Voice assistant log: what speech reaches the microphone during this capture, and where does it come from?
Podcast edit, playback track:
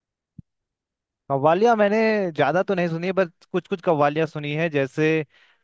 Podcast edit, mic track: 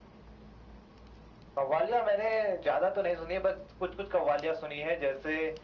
echo only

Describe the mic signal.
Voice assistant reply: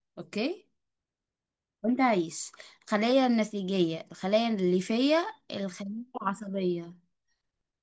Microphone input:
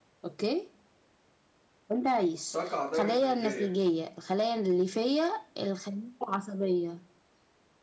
both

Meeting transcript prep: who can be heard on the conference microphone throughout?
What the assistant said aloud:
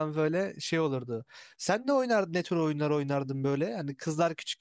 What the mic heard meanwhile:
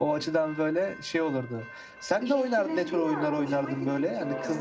both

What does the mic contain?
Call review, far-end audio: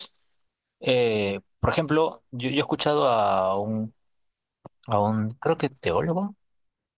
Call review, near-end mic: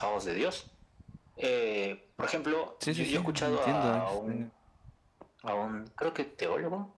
both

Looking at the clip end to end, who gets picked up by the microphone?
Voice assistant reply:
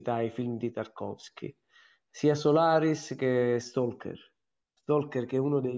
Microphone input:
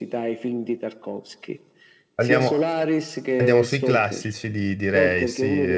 both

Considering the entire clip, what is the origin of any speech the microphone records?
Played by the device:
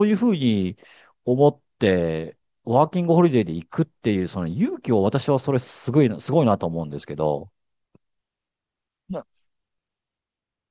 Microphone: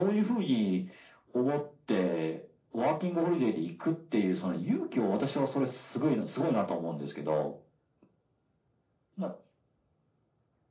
echo only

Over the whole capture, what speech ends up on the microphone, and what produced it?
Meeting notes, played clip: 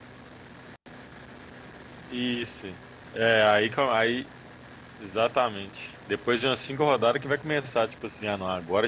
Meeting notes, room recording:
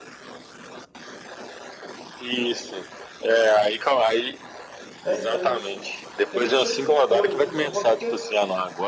both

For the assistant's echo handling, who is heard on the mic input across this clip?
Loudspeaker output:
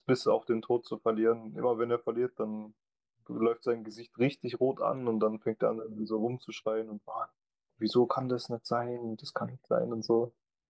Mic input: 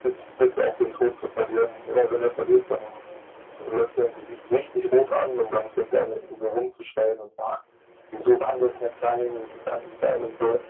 echo only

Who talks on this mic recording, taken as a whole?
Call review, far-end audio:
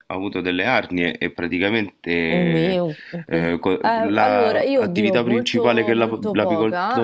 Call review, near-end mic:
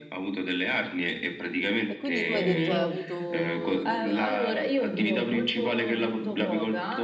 both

